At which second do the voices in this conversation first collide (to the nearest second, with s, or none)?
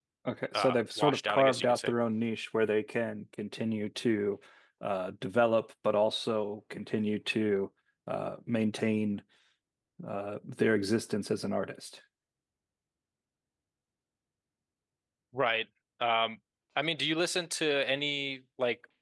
1 s